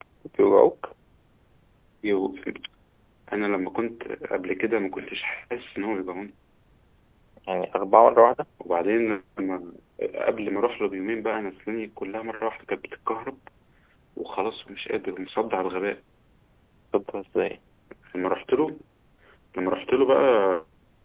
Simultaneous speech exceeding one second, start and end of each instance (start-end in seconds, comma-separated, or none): none